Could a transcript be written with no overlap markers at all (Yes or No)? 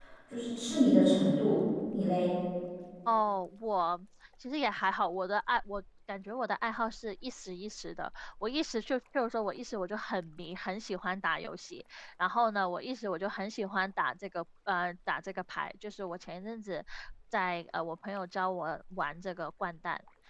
Yes